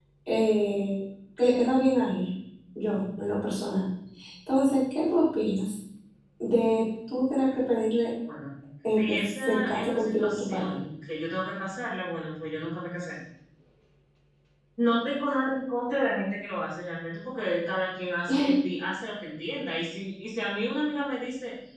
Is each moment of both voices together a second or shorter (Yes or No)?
No